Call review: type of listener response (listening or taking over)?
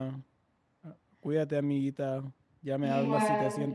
listening